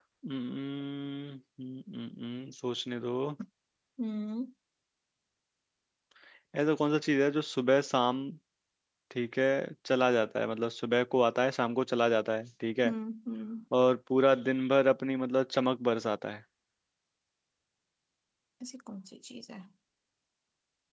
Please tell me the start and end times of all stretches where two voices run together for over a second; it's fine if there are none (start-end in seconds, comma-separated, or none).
none